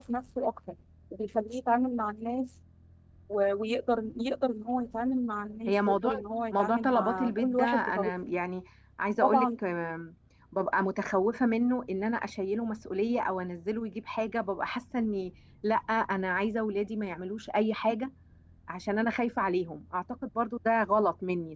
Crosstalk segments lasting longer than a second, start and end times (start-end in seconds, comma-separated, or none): 6.5-8.1